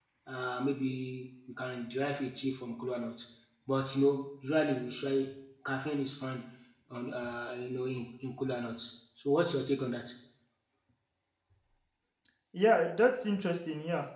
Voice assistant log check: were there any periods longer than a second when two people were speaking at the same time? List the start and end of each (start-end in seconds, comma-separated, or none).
none